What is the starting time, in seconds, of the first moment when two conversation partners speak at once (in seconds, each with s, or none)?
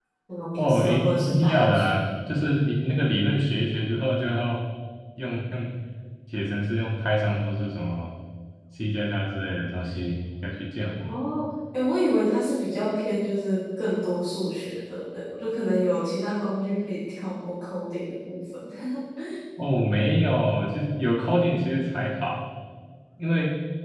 0.6 s